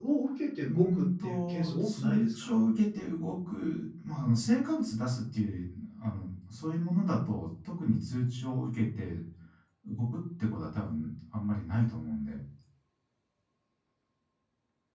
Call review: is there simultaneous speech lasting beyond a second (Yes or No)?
Yes